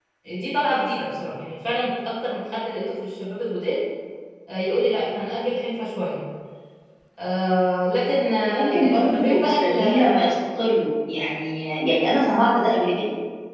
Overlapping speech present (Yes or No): Yes